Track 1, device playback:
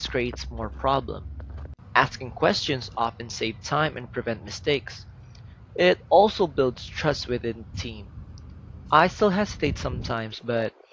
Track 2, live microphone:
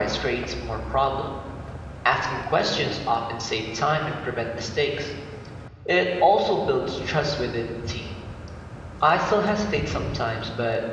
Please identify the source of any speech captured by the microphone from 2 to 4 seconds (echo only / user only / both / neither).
echo only